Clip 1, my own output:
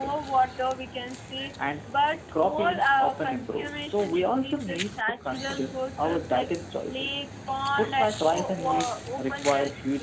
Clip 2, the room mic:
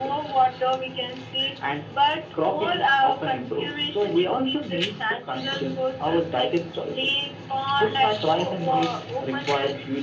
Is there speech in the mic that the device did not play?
No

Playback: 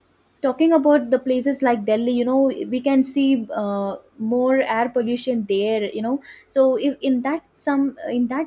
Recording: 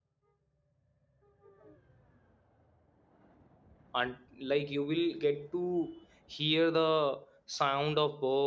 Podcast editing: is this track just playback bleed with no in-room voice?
No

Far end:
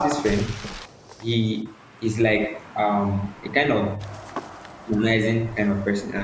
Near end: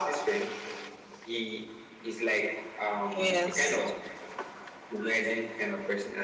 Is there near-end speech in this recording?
Yes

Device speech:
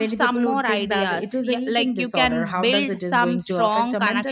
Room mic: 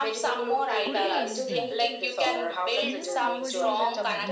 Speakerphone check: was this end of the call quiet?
No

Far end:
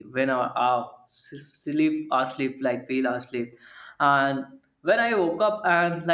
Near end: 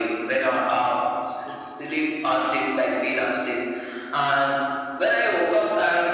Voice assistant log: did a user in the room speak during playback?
No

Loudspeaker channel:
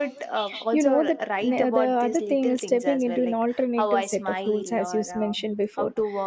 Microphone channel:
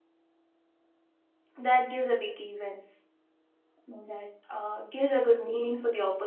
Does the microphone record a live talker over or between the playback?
Yes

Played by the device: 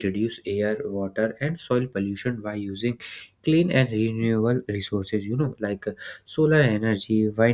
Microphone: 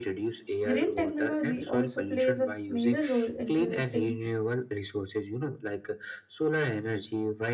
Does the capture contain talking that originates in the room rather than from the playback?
Yes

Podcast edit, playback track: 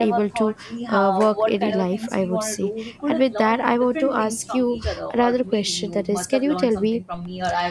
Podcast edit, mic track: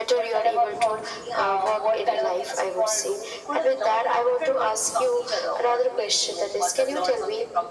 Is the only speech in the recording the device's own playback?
Yes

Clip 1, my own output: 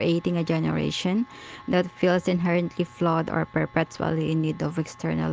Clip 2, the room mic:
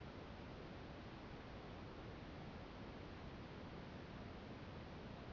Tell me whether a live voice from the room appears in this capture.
No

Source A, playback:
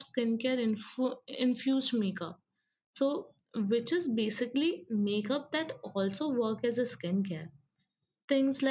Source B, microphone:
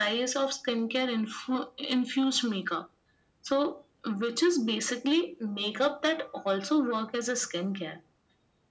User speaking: No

